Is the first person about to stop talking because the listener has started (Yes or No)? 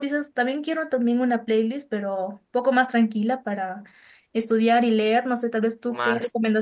Yes